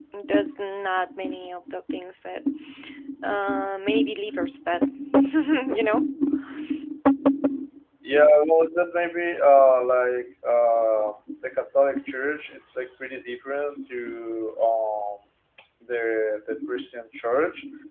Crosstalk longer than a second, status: none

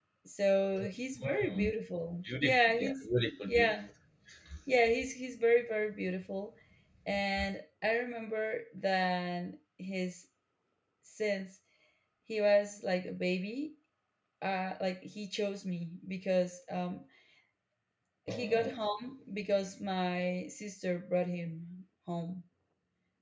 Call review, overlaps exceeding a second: present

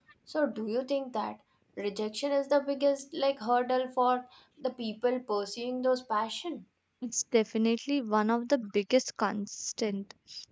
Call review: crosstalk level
none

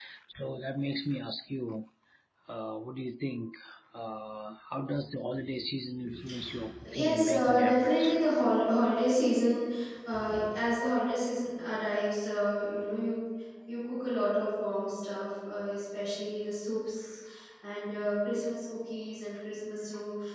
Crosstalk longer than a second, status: present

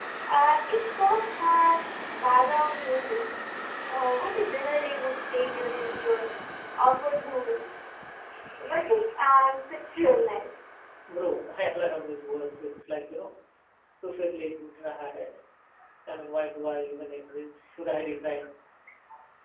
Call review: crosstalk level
none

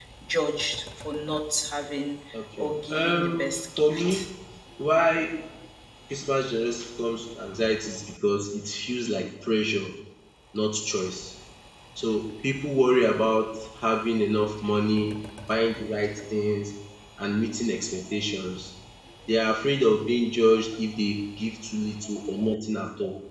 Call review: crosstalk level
present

